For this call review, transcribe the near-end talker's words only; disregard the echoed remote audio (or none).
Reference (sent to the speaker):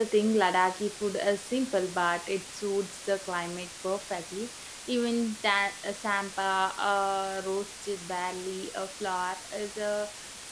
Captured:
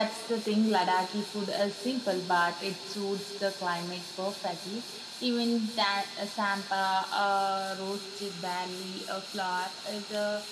none